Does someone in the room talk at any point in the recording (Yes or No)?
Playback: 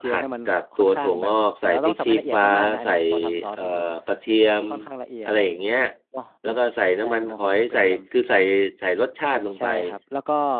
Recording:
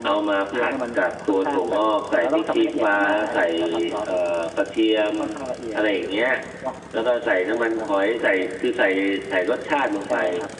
No